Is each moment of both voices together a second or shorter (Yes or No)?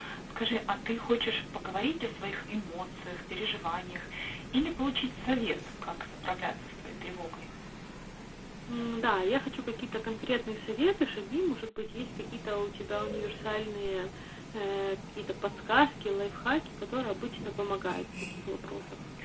Yes